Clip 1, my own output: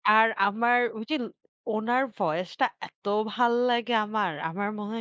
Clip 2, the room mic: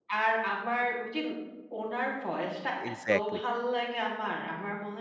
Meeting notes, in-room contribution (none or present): present